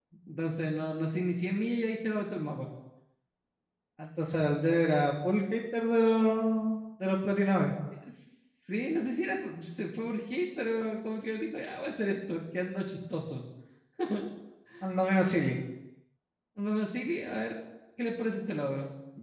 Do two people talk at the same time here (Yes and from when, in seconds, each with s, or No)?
No